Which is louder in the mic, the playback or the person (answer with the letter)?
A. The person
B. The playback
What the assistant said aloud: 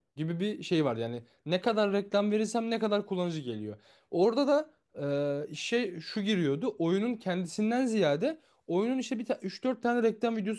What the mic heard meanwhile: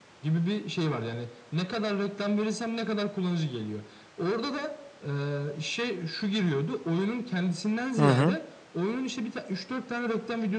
A